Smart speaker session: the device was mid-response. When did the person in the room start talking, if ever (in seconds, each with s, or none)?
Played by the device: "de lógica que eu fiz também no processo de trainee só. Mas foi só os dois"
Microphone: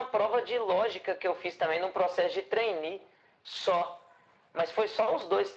none